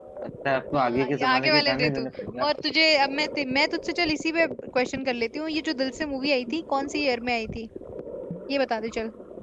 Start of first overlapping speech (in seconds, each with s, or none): 0.7 s